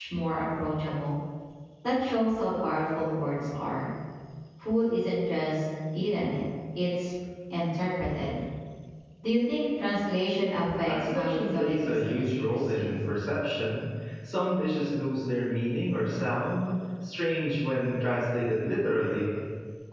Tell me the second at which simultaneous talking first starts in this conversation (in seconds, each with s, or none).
10.9 s